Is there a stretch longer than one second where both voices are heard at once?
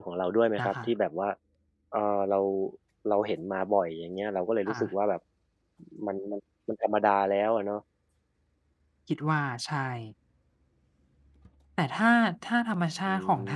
No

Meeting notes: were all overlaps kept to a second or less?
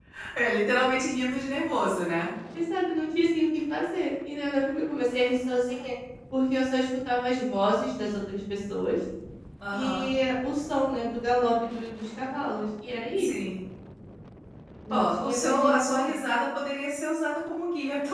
No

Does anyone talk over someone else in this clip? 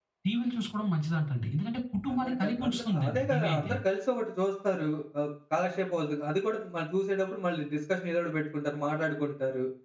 Yes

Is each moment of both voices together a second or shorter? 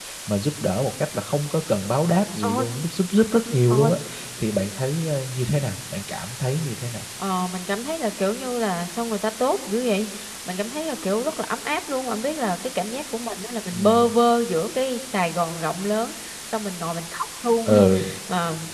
Yes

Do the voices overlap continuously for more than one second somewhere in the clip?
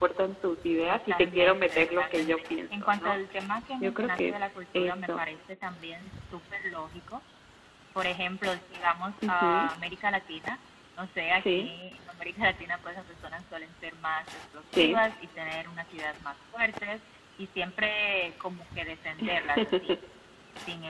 Yes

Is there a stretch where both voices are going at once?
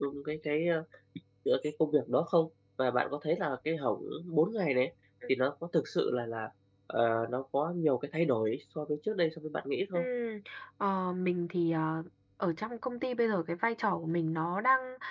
No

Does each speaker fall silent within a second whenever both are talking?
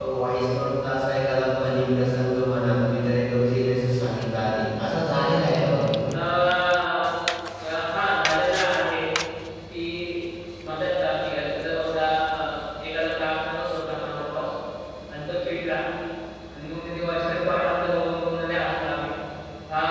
Yes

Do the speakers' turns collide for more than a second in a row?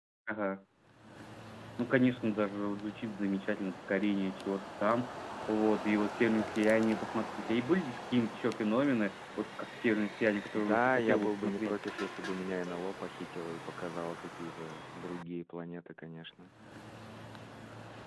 Yes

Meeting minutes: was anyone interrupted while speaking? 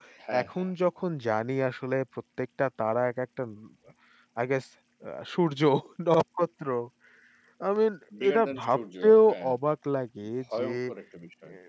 Yes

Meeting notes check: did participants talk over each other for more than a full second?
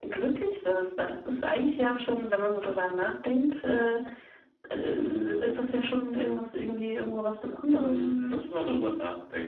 No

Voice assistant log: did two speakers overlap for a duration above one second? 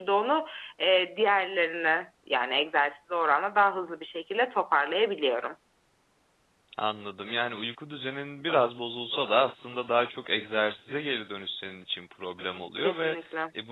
No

